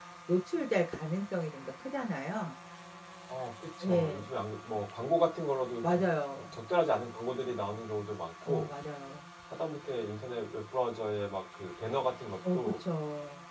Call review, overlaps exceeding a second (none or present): none